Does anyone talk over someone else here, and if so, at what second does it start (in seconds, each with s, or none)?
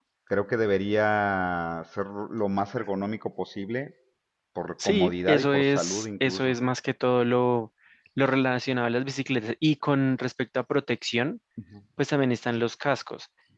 4.8 s